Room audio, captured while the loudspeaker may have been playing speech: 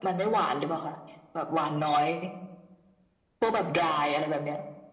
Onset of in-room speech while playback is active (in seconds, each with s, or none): none